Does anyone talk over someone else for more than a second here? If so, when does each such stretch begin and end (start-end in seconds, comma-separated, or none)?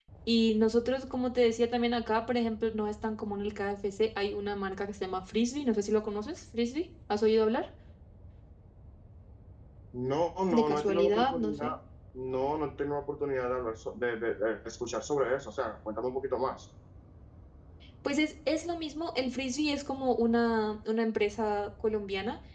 10.5-11.7